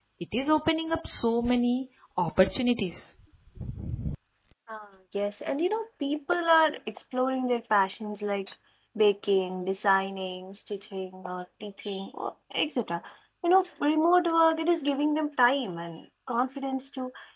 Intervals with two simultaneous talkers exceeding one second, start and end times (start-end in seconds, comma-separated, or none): none